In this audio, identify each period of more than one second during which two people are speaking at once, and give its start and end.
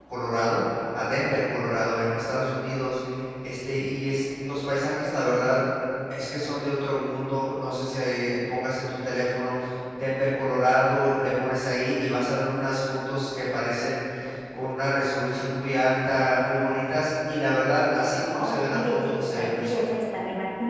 18.3-19.9

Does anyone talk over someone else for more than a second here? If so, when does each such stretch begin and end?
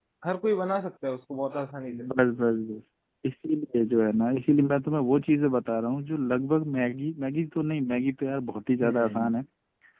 none

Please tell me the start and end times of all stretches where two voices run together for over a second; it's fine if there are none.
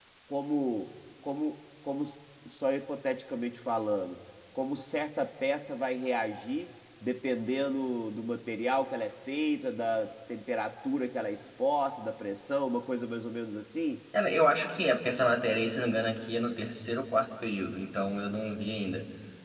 none

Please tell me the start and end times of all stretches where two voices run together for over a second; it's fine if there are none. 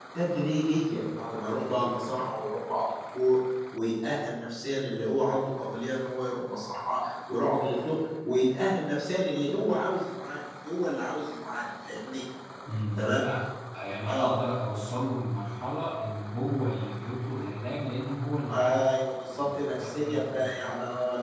19.3-20.5

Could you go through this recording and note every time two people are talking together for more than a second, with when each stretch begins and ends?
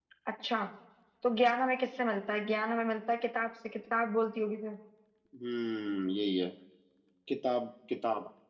none

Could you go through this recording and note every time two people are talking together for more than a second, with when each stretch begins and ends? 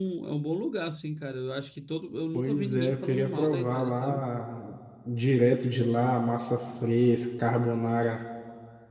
2.3-4.3

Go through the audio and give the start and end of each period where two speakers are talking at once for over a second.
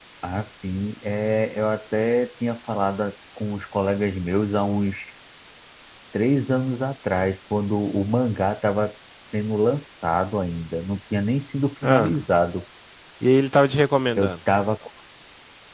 none

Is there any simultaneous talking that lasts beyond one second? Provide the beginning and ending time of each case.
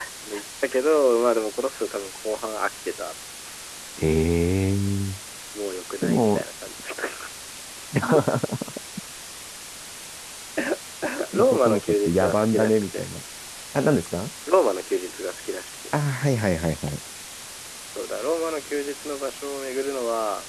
11.3-13.0

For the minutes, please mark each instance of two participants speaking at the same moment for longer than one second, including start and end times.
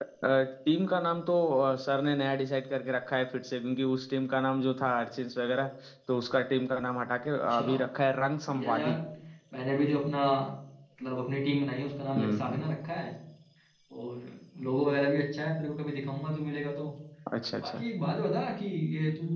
none

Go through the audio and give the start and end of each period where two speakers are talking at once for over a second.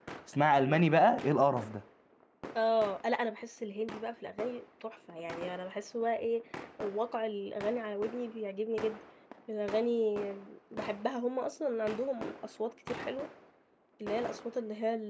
none

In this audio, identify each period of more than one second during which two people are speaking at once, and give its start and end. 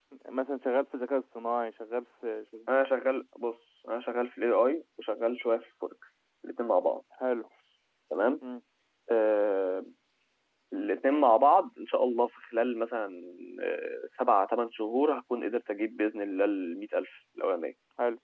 none

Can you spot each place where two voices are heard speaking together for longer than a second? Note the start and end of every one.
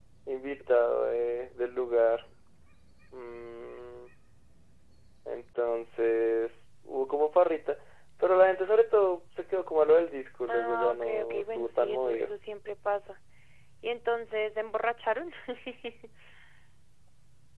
10.5-12.3

